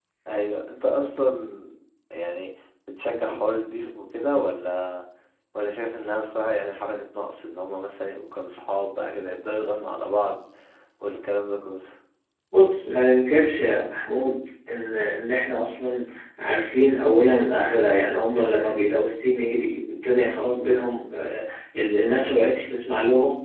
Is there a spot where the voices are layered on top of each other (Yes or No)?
No